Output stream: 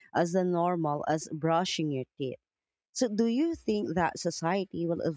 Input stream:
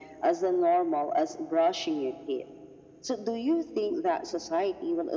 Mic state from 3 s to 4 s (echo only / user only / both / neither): echo only